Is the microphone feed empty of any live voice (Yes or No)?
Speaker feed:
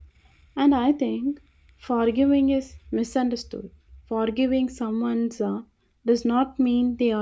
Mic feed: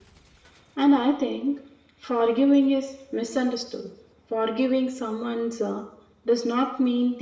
Yes